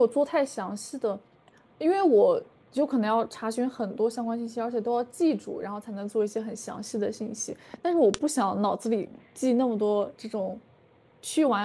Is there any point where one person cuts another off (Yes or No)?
No